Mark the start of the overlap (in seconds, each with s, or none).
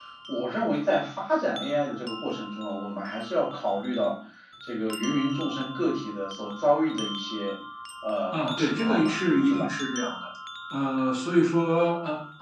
8.3 s